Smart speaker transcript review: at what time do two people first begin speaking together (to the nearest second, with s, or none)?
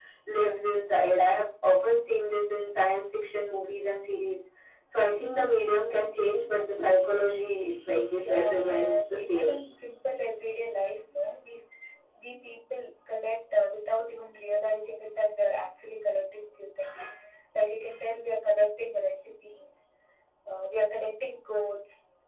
8 s